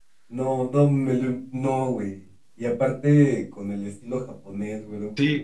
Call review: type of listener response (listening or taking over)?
taking over